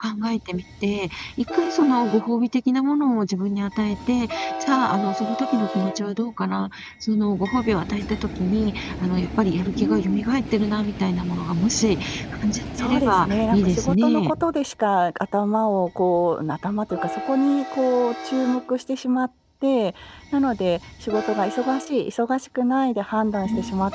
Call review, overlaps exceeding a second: present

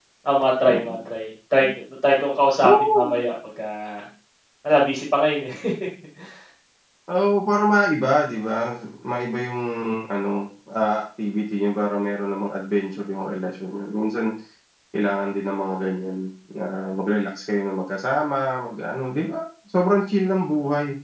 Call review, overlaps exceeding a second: none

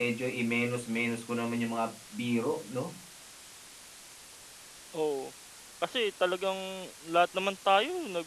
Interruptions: none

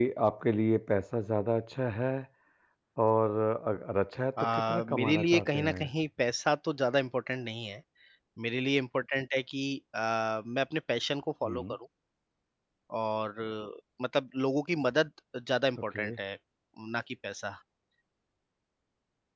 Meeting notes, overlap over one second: present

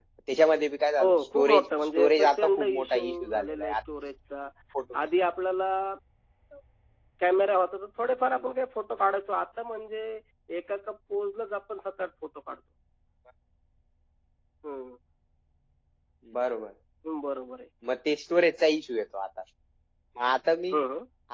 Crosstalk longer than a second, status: present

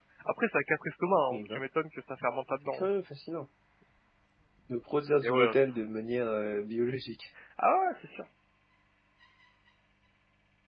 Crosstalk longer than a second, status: none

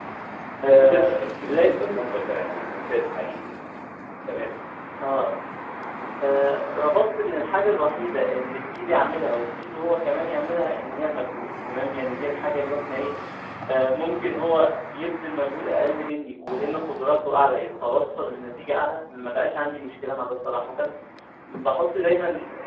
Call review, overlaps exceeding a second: present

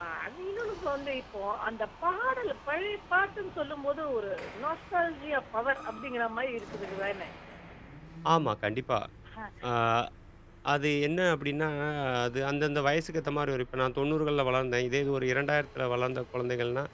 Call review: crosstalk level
none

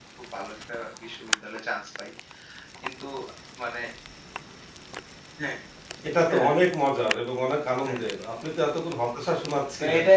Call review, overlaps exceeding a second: none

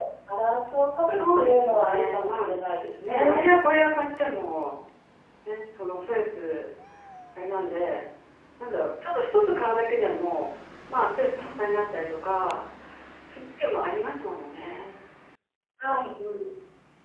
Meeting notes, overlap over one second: present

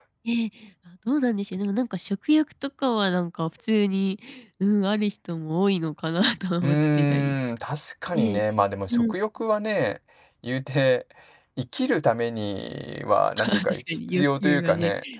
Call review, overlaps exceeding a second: present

